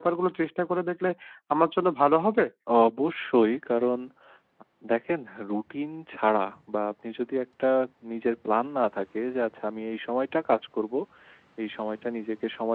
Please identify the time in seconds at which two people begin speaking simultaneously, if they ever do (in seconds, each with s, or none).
none